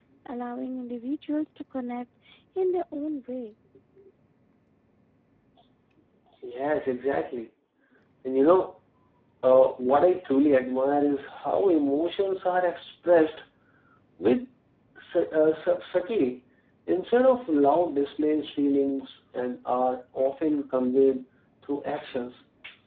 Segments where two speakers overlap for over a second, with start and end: none

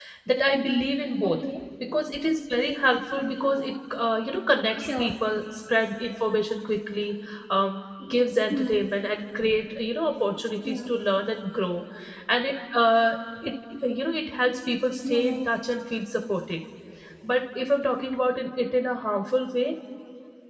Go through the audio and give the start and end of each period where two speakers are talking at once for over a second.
none

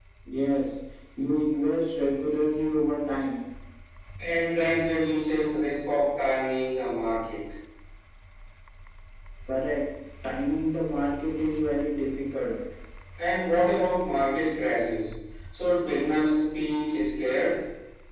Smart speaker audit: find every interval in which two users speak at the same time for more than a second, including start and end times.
none

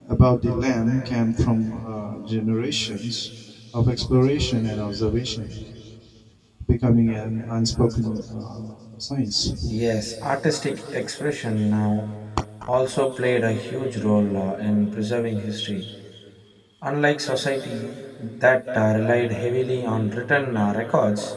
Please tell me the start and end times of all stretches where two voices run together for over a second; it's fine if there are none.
none

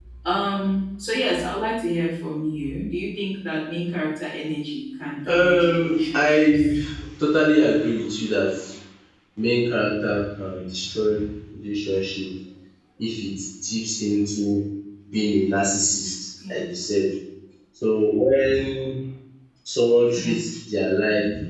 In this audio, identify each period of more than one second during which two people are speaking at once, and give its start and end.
5.3-6.7

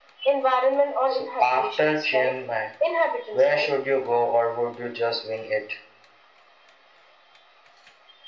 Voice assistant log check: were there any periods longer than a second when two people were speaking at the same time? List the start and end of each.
1.1-2.3

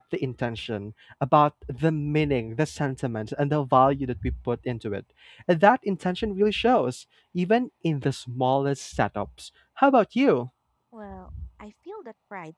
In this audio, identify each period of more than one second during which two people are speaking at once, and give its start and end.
none

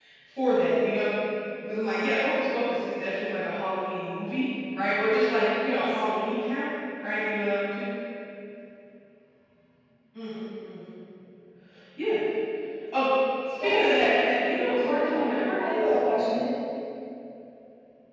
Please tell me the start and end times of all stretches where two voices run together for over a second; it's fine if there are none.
14.6-15.9

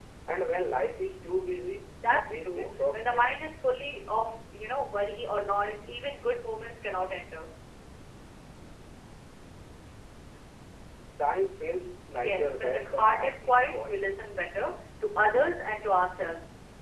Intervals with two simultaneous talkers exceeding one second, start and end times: 2.0-3.4, 12.1-14.0

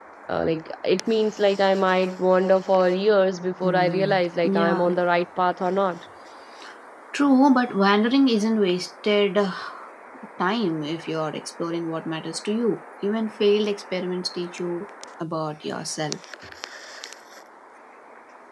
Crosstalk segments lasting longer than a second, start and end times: 3.6-4.9

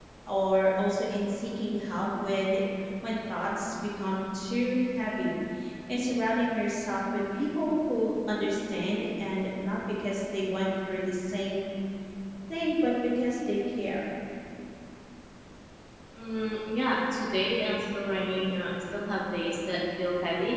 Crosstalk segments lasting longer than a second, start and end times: none

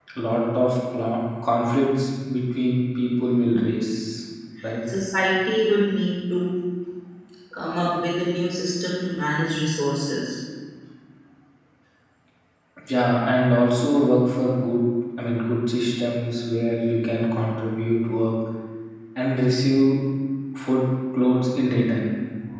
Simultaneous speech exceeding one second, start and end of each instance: none

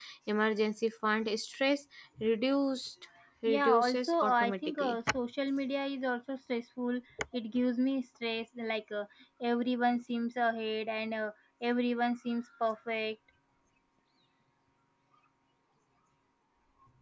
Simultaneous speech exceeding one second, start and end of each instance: 3.5-5.0

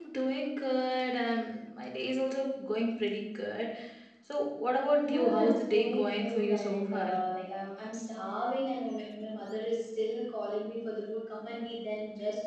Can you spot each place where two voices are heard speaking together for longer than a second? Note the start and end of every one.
5.0-7.1

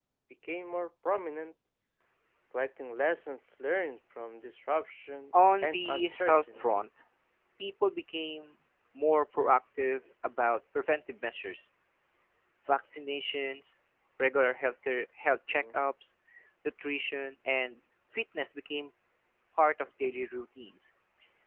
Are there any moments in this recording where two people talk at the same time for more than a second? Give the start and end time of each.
5.6-6.8

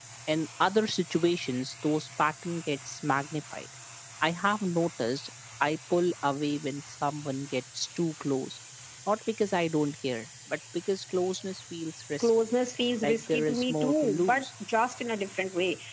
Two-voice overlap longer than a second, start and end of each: 13.0-14.5

